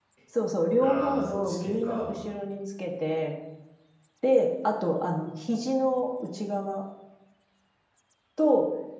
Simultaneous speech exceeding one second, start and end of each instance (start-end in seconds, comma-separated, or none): 0.8-2.2